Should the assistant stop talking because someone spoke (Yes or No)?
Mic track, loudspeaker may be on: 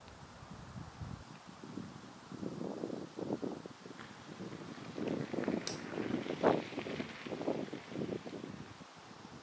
No